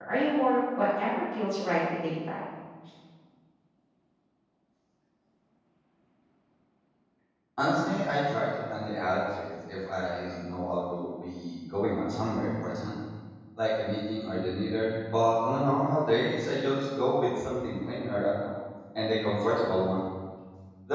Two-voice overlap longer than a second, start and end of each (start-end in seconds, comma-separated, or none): none